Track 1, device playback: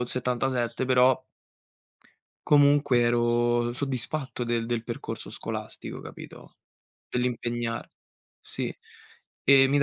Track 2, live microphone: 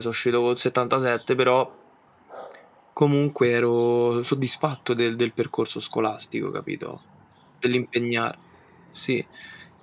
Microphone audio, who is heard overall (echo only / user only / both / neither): echo only